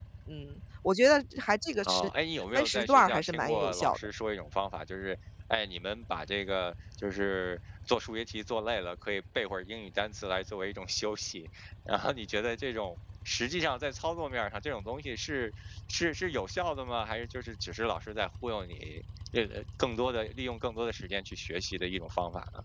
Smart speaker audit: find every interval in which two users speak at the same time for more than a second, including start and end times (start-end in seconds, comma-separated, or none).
2.5-4.0